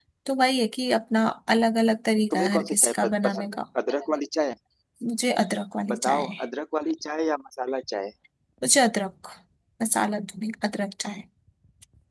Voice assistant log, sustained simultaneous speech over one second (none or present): present